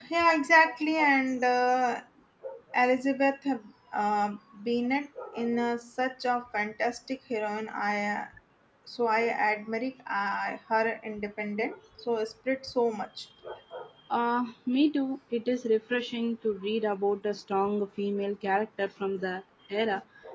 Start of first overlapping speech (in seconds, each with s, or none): none